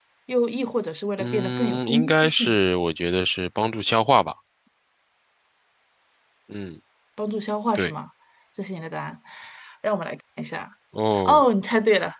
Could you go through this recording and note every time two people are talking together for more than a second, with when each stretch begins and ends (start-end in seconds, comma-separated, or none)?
1.2-2.6